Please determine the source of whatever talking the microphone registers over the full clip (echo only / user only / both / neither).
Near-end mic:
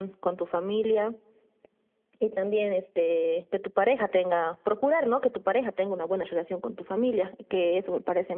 echo only